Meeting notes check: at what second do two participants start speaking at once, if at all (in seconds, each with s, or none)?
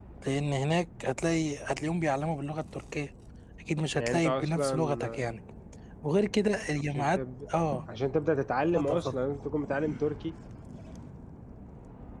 4.0 s